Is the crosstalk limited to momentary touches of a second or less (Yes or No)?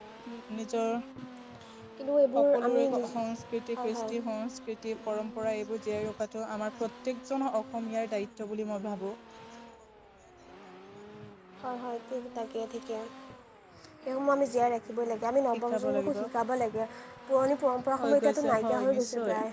No